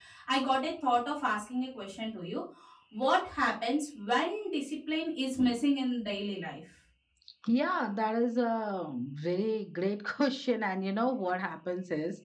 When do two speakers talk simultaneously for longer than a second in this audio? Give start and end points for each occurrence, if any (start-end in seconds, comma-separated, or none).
none